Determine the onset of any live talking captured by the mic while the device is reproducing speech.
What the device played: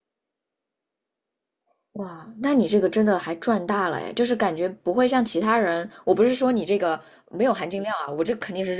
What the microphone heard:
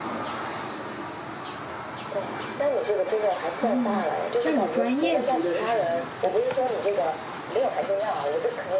3.6 s

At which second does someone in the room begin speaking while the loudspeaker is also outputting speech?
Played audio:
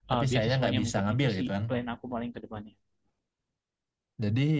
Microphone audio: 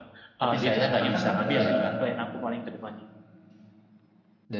0.6 s

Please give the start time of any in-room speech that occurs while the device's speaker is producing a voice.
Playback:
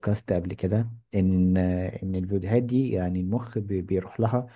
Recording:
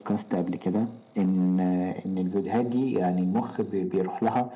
none

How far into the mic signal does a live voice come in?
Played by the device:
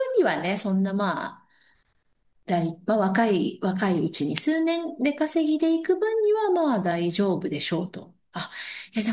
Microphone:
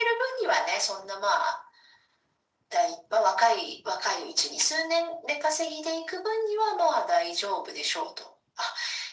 none

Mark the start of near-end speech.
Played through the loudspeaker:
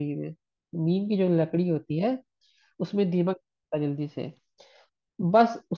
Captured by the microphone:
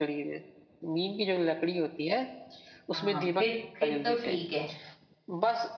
2.9 s

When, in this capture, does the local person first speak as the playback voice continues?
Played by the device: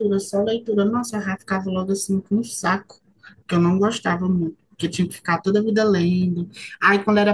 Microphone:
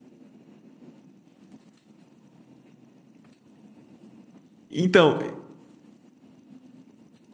4.7 s

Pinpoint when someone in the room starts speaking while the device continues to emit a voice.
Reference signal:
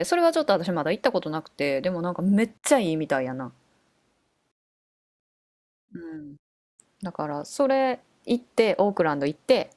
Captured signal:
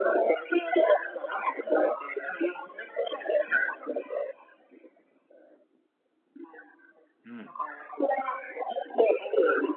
7.2 s

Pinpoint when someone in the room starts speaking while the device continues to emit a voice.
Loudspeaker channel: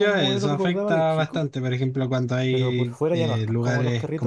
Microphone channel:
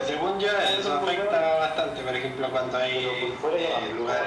none

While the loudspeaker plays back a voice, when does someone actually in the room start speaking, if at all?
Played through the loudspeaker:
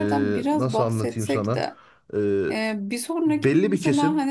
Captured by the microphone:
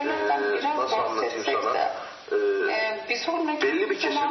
none

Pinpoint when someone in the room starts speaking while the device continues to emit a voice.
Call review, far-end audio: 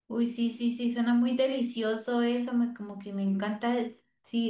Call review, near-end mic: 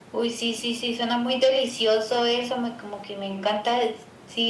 none

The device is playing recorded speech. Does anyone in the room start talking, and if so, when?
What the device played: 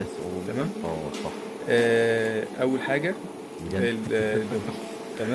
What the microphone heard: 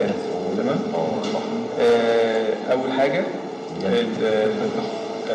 0.4 s

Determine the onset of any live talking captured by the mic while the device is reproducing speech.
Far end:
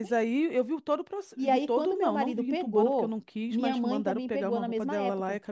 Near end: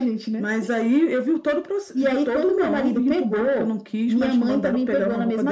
none

